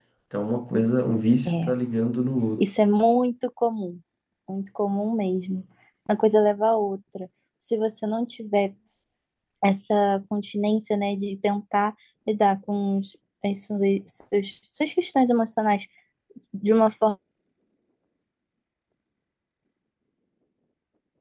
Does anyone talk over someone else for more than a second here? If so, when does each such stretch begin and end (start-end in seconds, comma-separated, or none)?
none